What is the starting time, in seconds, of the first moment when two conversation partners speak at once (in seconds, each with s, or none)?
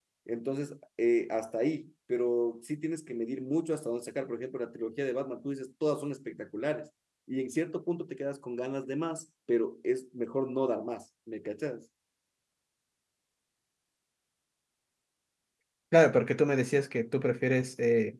none